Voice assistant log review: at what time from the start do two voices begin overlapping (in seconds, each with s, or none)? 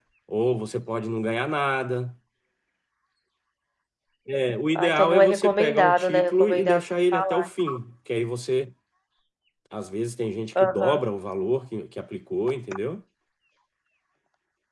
4.8 s